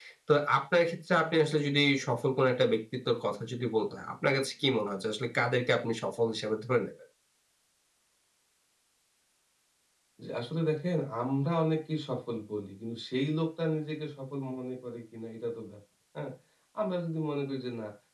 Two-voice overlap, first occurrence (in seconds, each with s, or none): none